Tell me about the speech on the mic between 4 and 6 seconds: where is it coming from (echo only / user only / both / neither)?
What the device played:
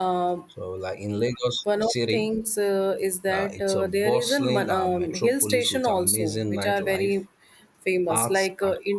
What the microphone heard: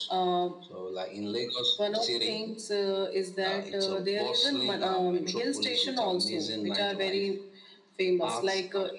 echo only